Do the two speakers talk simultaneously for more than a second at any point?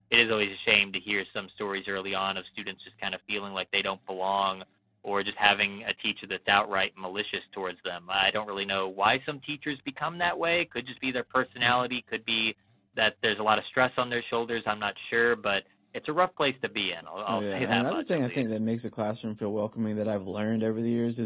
Yes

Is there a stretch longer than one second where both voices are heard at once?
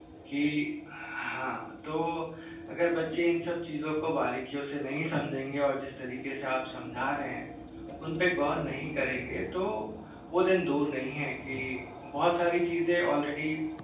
No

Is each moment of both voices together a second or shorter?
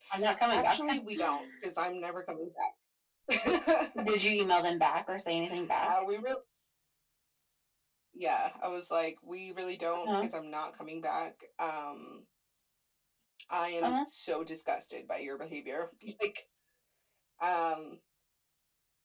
Yes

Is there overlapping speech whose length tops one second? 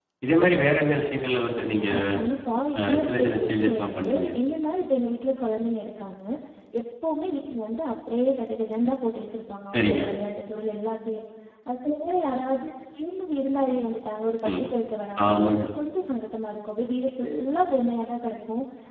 Yes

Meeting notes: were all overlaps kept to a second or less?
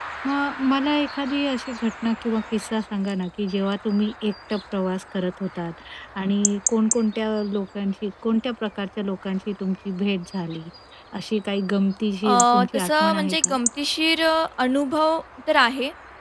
No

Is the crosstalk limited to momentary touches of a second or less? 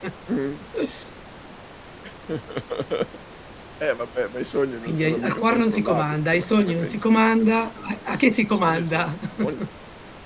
No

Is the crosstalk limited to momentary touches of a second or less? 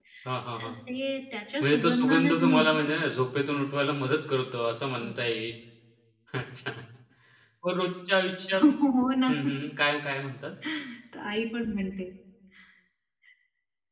No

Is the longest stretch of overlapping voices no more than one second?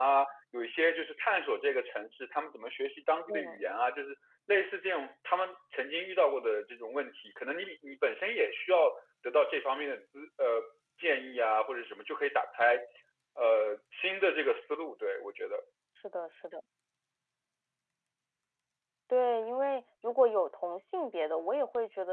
Yes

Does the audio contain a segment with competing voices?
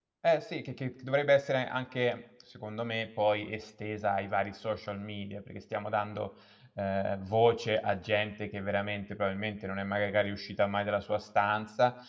No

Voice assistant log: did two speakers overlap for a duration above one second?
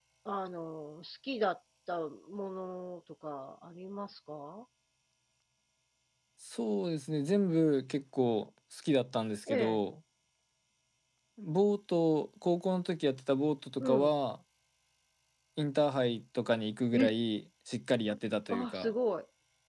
No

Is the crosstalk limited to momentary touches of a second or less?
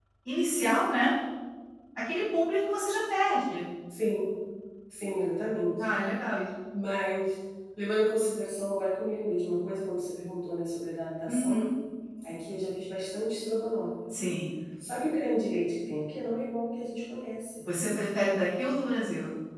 Yes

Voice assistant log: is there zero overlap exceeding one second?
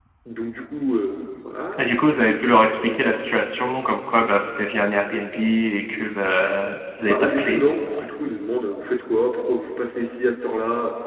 Yes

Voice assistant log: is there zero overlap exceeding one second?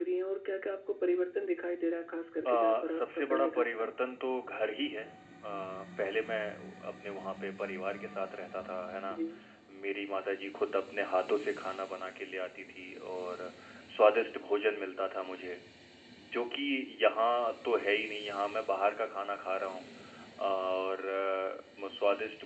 No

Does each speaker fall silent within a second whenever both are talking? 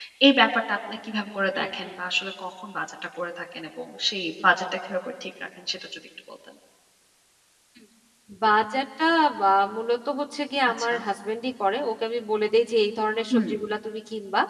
Yes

